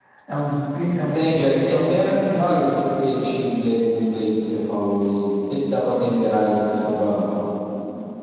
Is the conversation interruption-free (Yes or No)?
No